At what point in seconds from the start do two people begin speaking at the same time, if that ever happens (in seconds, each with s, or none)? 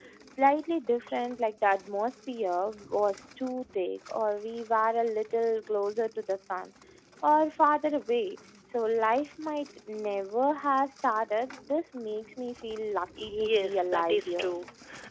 13.2 s